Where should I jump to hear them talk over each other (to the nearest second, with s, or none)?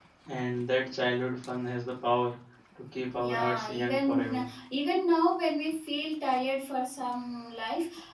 3 s